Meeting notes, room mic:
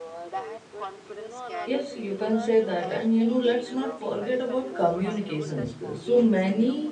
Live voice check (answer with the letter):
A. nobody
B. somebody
B